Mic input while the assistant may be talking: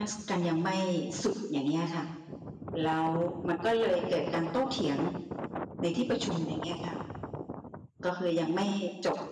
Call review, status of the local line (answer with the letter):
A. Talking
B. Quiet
A